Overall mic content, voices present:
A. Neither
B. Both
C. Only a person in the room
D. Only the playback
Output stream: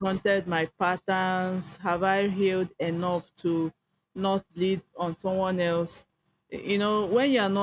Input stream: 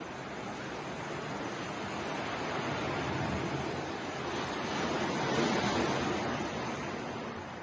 A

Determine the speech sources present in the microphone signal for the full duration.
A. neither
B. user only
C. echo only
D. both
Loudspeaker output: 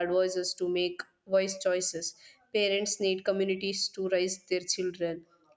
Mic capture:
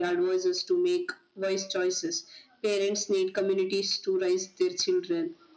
C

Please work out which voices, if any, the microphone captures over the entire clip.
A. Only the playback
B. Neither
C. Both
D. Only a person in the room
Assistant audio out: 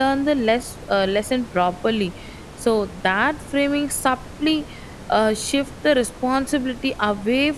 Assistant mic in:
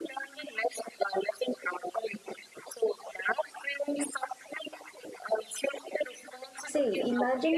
C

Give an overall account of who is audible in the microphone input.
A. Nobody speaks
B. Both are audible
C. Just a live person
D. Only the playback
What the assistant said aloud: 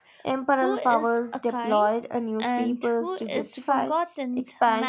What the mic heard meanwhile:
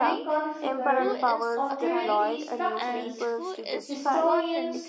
B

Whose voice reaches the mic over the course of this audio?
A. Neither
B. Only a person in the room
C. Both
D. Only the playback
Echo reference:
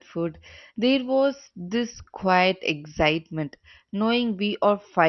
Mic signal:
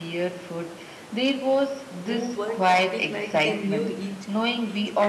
C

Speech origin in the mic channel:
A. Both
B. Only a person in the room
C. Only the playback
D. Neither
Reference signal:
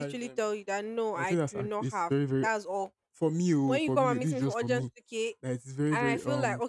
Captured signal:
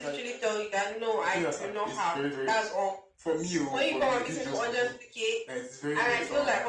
C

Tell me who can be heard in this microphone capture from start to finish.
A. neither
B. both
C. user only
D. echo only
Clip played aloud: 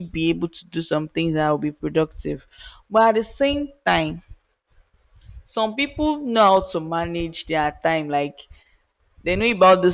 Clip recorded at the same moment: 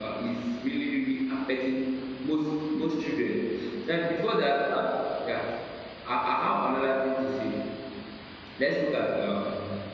C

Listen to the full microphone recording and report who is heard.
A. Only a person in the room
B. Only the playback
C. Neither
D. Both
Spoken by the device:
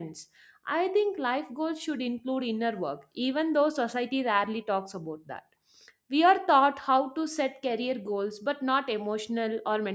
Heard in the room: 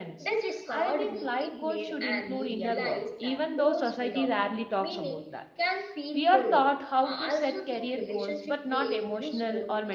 D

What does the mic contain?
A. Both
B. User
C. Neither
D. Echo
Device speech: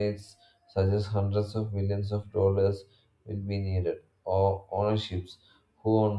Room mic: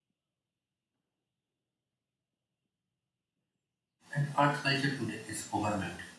B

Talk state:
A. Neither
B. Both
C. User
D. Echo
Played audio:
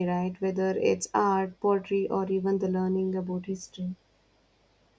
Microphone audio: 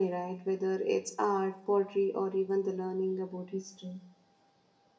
D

